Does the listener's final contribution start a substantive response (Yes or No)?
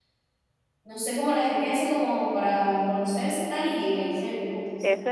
Yes